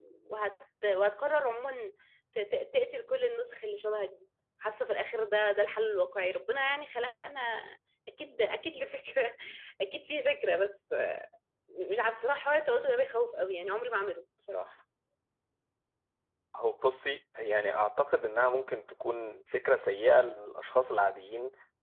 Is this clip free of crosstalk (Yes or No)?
Yes